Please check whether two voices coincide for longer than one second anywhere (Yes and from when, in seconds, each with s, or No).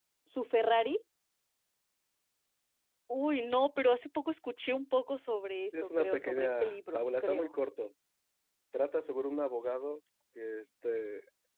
Yes, from 5.7 s